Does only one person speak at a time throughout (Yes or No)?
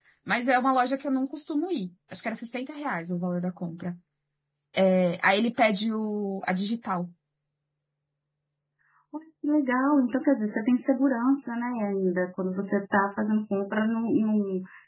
Yes